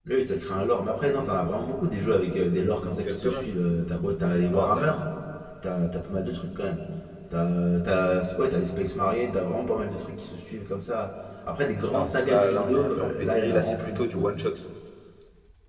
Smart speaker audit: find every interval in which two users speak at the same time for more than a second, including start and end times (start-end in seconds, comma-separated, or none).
11.9-14.3